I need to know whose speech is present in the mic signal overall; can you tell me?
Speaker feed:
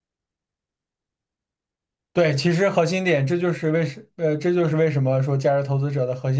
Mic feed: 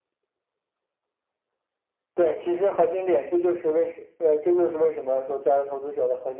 echo only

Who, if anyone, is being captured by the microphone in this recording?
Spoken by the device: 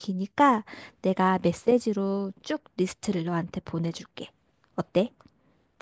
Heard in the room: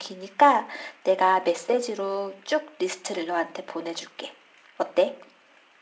echo only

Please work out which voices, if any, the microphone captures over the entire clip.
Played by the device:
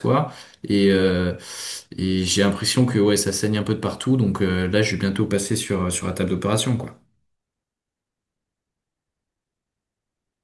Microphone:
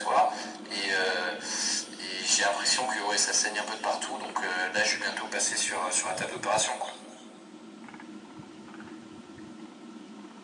echo only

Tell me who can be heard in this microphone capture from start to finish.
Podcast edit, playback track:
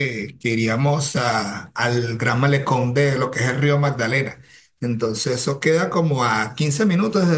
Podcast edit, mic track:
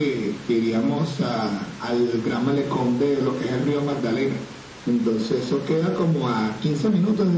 echo only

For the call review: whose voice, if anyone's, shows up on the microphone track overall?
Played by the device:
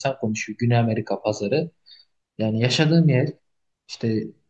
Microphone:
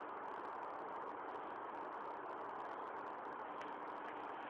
neither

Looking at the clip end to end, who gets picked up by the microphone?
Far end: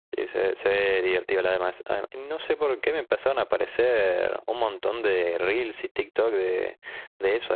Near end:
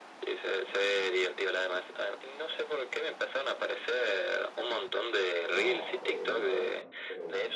both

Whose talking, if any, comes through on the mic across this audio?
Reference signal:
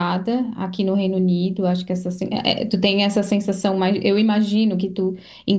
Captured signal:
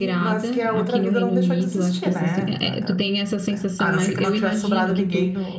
both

